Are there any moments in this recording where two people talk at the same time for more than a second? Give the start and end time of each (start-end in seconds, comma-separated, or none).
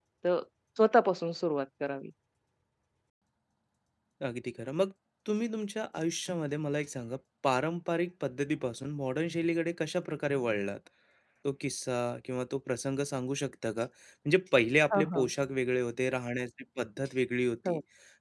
none